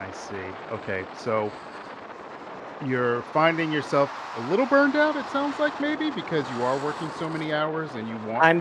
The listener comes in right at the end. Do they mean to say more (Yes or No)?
Yes